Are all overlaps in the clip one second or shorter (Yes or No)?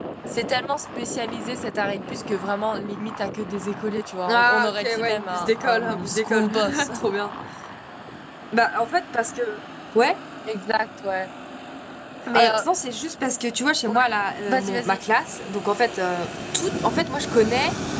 No